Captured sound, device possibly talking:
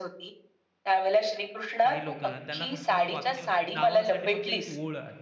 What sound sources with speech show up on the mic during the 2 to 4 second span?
both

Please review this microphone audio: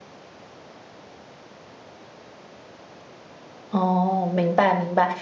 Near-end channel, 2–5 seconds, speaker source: user only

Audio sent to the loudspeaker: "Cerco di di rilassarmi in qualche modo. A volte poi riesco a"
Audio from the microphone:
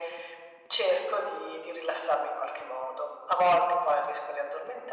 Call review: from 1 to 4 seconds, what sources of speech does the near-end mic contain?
echo only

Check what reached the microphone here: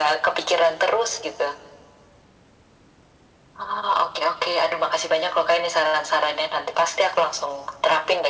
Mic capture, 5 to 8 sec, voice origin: echo only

